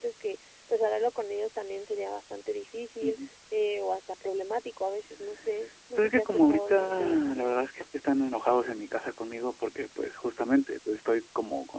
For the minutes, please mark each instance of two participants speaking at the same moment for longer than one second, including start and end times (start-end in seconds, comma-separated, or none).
6.0-7.2